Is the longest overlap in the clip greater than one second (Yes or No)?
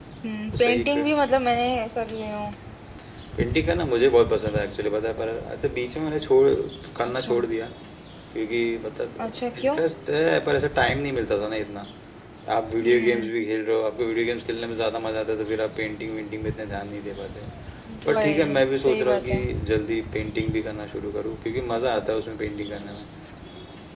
Yes